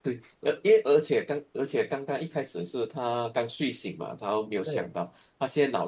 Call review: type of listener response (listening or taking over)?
listening